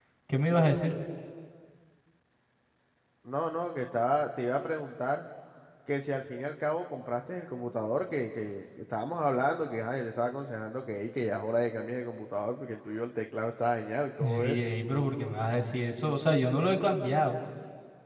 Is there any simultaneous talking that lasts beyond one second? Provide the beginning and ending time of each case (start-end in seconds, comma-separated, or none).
none